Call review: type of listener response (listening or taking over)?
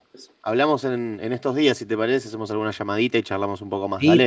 taking over